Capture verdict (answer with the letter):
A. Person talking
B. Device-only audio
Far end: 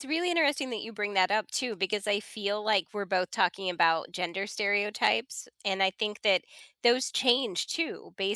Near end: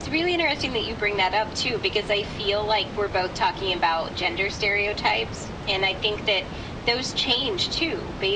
B